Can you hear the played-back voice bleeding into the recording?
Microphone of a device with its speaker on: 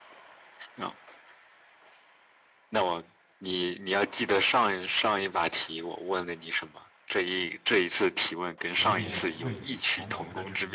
Yes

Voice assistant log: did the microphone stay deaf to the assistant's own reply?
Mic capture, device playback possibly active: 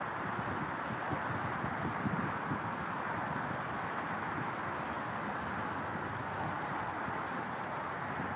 Yes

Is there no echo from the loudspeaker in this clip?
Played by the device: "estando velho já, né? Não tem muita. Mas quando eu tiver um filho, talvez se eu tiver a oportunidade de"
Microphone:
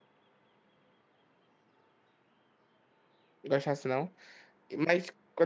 Yes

